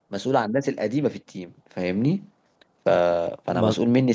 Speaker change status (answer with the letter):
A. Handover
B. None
B